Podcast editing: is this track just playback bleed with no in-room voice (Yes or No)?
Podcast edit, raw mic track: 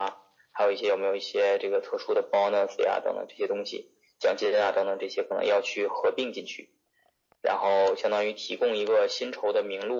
Yes